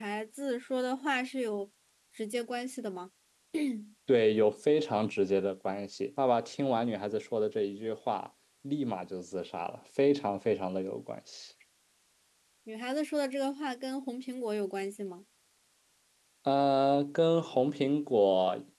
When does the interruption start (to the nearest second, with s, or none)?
none